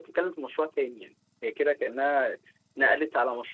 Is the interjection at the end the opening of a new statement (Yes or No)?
No